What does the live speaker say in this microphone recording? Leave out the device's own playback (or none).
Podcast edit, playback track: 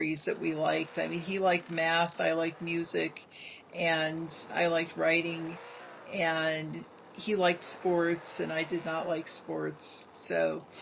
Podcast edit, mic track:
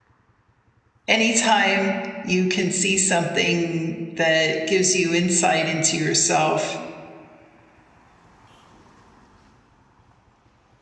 anytime you can see something that gives you insight into yourself